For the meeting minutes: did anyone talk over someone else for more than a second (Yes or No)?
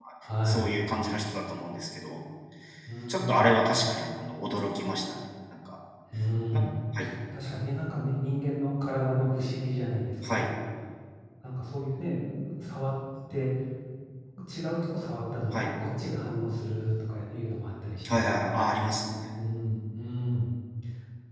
No